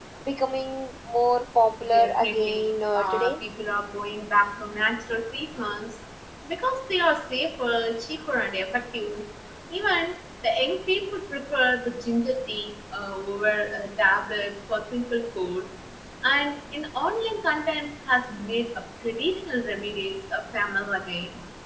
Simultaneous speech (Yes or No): Yes